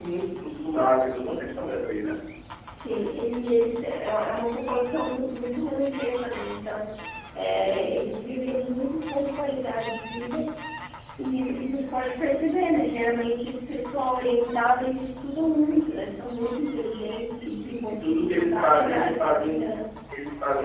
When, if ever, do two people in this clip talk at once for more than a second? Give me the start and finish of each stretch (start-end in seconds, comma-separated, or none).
17.9-19.6